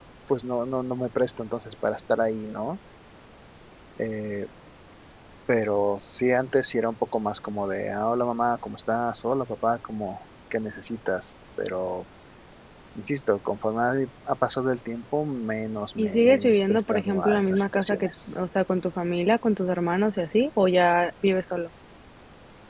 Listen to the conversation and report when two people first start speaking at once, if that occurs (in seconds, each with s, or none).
16.0 s